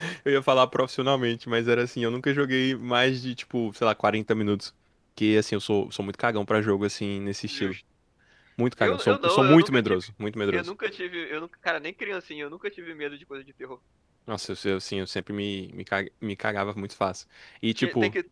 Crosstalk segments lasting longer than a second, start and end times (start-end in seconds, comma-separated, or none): 8.8-10.0